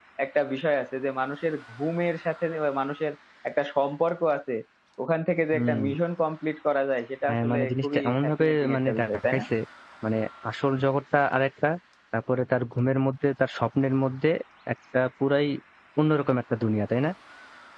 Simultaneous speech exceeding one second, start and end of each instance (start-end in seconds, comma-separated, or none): 7.3-9.4